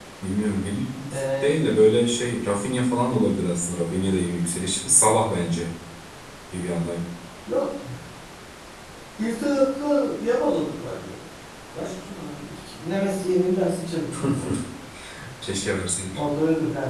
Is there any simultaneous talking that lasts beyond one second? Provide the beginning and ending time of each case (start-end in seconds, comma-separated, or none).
none